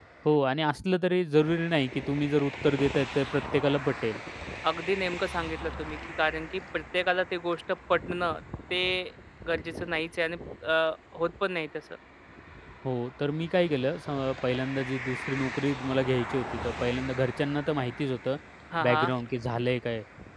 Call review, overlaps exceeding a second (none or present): none